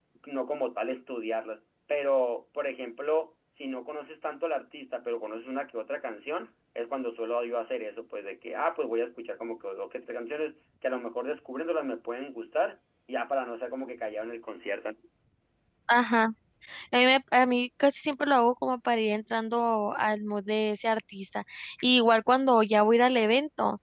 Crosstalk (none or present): none